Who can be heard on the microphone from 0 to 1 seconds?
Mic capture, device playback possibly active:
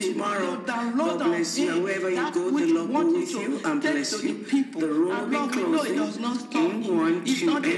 echo only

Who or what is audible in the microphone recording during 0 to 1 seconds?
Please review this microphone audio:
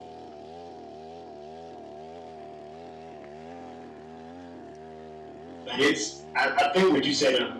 neither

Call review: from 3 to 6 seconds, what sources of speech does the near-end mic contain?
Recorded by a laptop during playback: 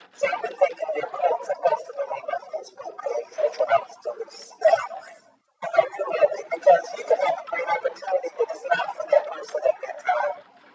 echo only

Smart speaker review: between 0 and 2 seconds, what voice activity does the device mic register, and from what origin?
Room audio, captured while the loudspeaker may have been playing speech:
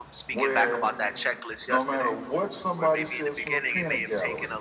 both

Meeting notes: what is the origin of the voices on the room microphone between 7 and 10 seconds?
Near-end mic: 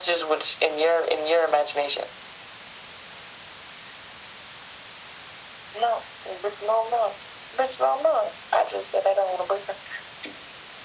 echo only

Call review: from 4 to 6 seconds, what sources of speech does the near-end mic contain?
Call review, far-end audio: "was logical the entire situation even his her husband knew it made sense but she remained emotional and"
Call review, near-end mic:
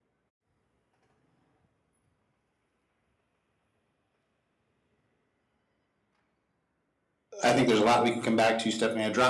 neither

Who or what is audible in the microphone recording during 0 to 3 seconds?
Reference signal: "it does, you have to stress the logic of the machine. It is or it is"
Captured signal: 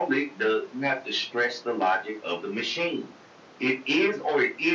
echo only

